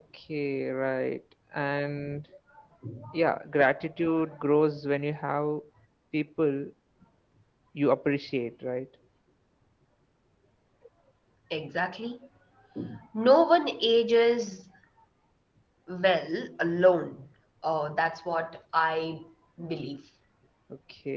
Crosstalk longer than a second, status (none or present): none